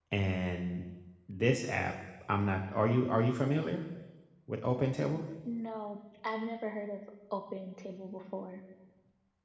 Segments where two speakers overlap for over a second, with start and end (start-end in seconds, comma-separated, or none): none